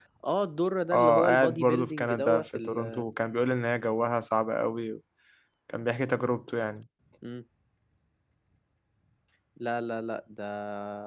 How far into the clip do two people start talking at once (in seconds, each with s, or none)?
0.9 s